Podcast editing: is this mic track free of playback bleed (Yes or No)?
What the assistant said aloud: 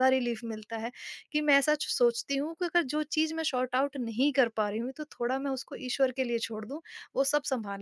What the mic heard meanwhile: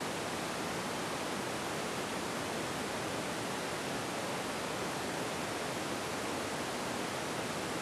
Yes